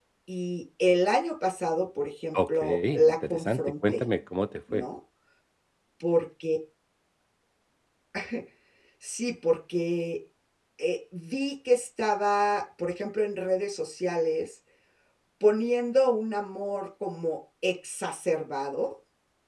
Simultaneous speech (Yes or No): Yes